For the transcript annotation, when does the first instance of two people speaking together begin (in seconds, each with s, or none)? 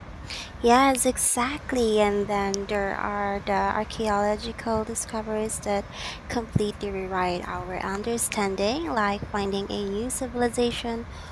none